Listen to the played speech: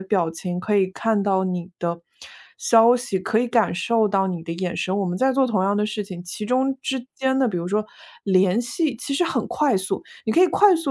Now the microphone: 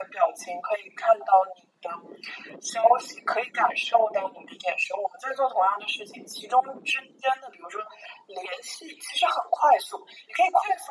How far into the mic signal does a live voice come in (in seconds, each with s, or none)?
none